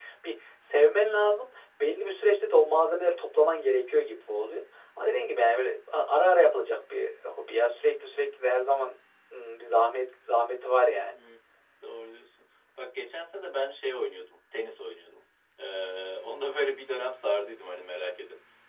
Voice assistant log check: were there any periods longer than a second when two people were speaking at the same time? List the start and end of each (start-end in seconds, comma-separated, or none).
none